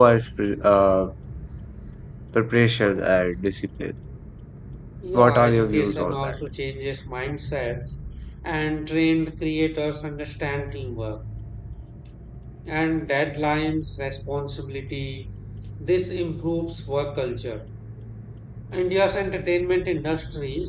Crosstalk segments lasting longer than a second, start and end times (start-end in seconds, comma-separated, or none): 5.1-6.3